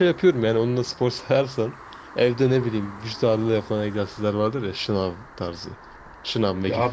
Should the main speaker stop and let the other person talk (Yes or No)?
No